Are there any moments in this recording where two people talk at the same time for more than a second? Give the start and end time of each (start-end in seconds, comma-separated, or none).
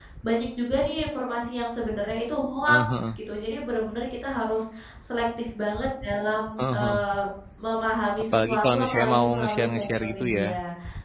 8.3-10.5